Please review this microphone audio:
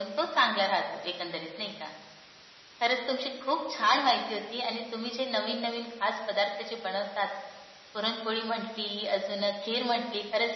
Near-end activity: none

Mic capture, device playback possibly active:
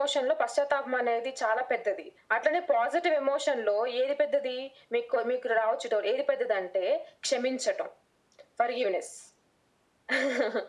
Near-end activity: none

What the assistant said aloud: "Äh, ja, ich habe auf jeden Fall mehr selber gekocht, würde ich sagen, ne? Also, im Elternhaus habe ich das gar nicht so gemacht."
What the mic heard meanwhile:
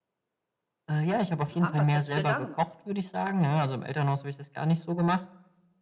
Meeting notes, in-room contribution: present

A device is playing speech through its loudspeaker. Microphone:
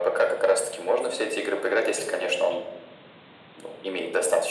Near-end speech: none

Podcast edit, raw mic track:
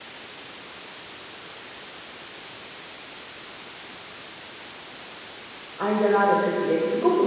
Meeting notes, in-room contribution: present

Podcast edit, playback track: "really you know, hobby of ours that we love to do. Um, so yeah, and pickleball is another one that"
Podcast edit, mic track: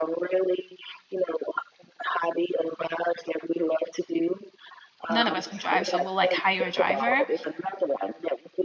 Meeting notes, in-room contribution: present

